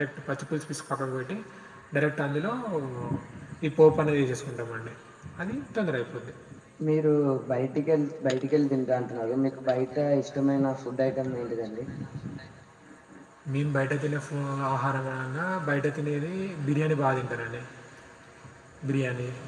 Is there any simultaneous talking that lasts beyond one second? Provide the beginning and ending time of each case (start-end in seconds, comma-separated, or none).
none